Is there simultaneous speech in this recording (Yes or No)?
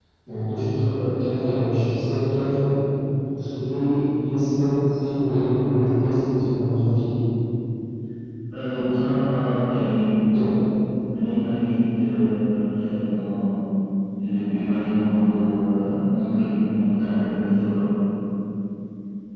No